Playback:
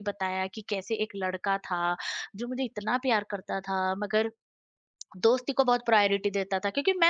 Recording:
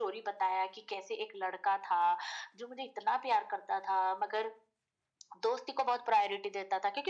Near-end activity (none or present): none